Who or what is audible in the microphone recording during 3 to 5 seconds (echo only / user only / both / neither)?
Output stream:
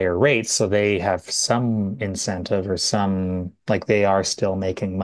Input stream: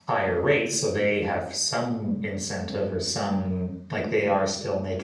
echo only